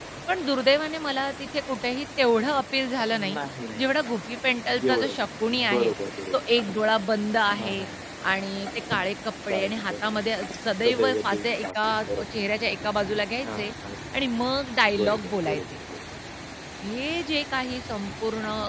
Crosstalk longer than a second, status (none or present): present